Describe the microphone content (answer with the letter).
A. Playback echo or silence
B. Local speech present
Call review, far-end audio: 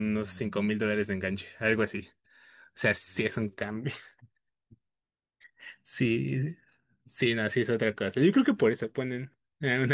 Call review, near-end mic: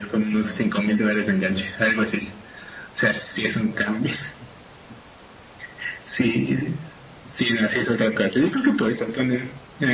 A